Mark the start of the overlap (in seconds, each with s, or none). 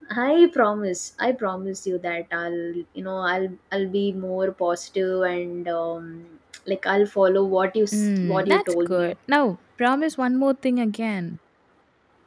7.9 s